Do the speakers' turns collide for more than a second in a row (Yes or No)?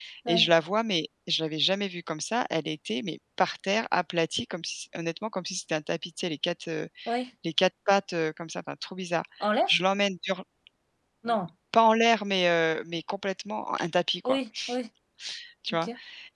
No